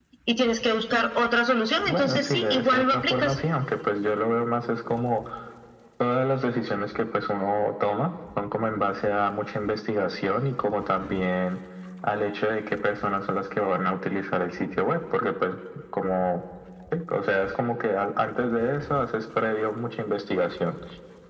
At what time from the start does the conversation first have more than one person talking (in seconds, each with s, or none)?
1.9 s